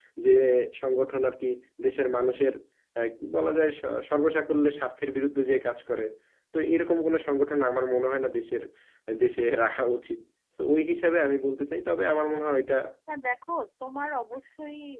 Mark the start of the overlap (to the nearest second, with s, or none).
none